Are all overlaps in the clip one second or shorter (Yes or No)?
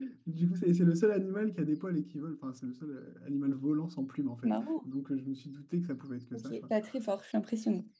Yes